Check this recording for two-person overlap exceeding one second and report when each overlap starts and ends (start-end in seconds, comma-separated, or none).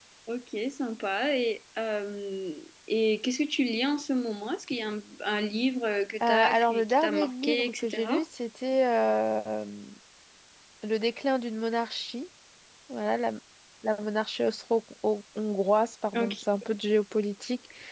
6.3-8.2